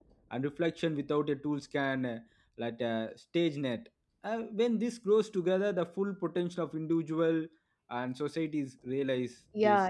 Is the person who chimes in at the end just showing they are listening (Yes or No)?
No